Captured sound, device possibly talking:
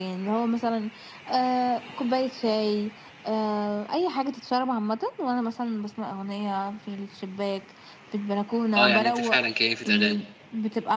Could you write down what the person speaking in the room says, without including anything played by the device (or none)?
آه، يعني أنتِ فعلًا كيّفة أغاني.